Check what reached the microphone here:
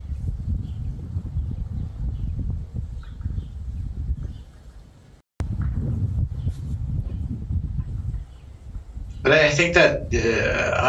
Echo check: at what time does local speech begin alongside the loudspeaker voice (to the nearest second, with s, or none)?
9 s